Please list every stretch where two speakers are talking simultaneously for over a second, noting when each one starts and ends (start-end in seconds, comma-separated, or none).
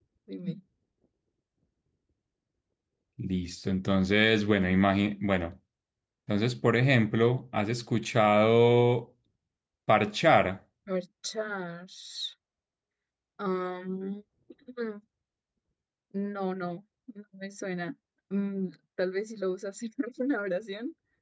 none